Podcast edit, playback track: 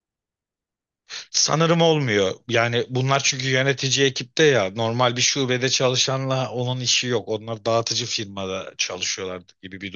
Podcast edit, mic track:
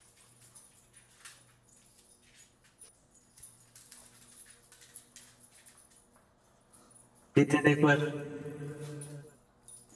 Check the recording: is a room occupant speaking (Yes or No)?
Yes